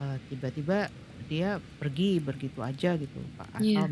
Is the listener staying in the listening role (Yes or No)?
Yes